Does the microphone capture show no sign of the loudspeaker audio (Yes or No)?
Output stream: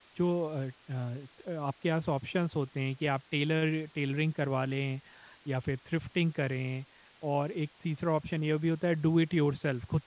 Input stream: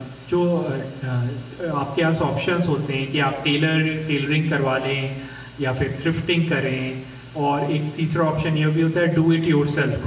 No